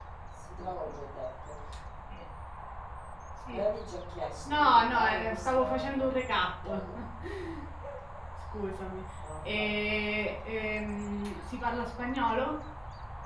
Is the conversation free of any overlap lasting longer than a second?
No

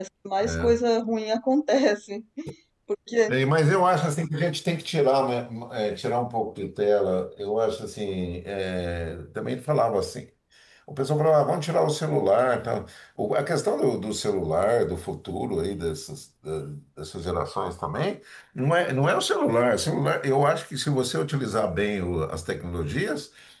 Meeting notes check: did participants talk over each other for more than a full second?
No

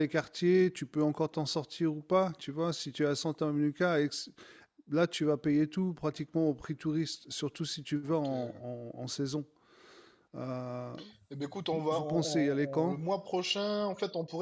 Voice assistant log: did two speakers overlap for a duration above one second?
Yes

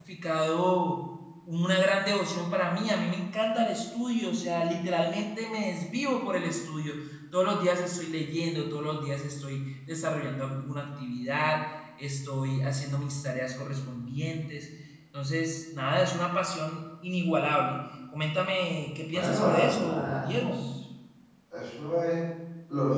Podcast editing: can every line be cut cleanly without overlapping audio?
No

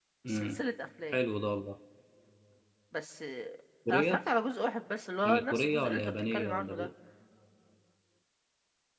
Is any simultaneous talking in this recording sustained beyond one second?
Yes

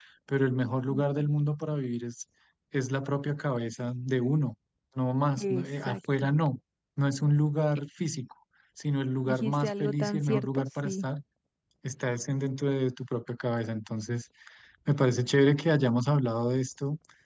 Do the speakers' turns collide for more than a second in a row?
Yes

